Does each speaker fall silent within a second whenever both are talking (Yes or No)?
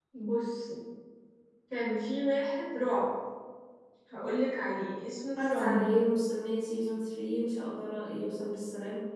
Yes